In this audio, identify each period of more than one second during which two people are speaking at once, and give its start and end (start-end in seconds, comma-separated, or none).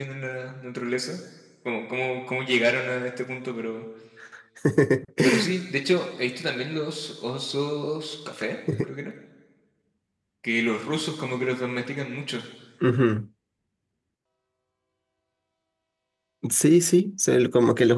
none